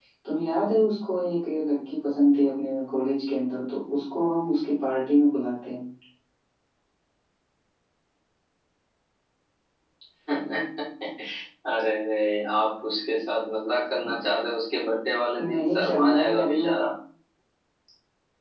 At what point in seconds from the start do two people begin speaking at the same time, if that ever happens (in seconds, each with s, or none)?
15.4 s